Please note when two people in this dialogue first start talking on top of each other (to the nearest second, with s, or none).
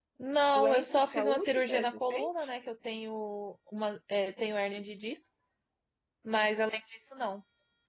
1 s